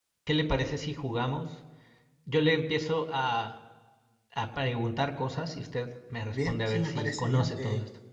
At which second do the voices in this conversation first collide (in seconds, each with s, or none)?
6.3 s